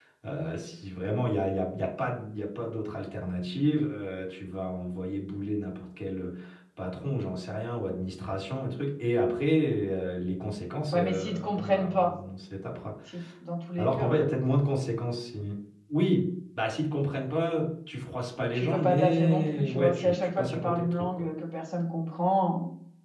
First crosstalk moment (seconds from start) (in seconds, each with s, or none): 10.9 s